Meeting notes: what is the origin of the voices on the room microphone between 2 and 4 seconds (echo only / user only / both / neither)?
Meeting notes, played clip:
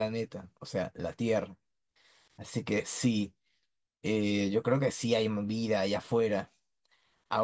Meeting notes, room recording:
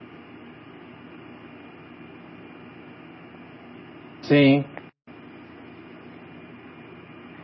neither